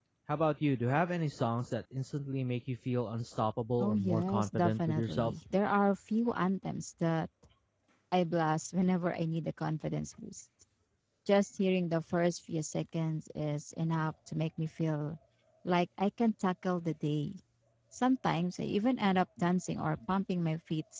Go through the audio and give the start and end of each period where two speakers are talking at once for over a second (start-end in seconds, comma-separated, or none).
3.8-5.3